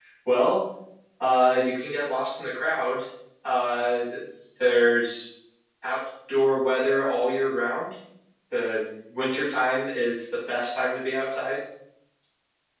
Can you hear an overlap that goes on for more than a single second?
No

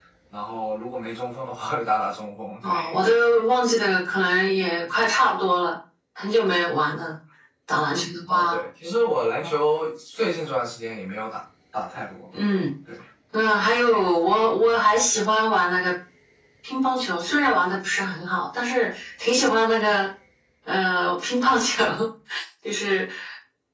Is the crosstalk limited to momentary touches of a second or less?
Yes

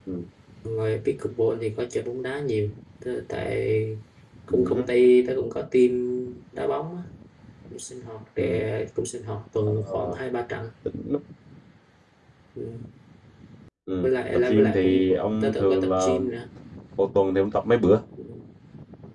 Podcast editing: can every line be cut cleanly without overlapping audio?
No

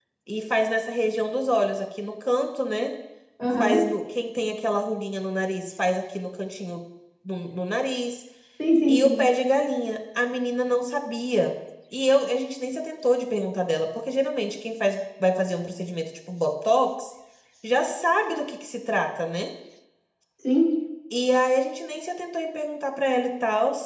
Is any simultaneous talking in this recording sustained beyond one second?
No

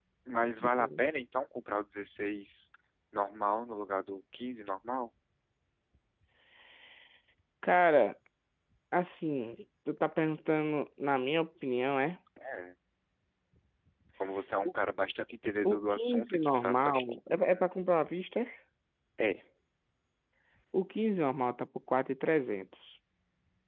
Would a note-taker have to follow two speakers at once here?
Yes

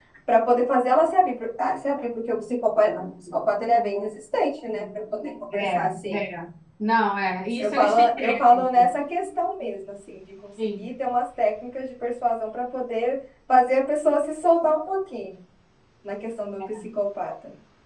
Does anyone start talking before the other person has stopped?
Yes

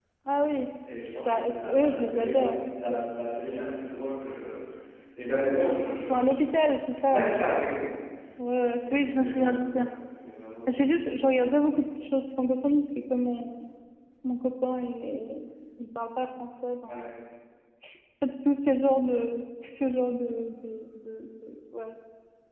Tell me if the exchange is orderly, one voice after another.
No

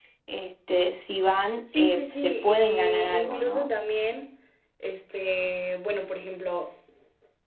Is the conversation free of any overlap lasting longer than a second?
No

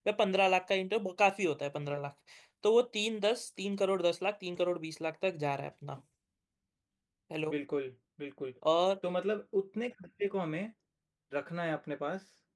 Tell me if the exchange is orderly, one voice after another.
Yes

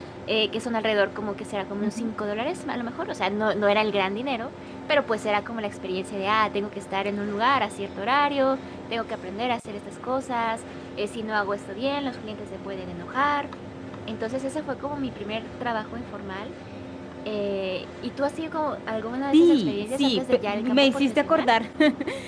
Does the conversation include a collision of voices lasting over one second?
Yes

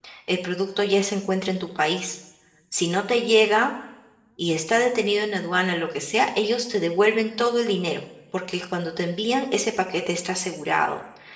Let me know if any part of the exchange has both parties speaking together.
No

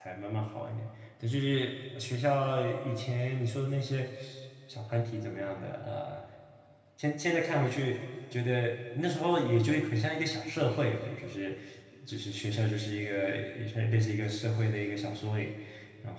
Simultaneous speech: No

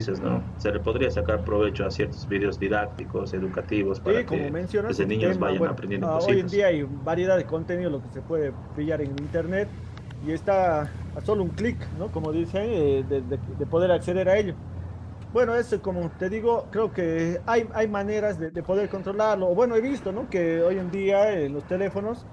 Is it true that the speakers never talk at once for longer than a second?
No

